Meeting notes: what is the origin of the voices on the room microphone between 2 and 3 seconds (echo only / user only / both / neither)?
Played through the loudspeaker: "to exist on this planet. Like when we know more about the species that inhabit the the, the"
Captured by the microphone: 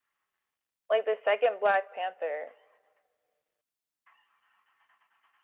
user only